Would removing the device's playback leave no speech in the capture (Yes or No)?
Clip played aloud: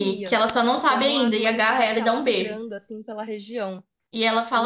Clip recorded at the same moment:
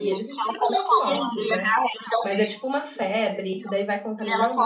No